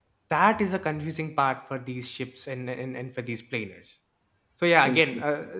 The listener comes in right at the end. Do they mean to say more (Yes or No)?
No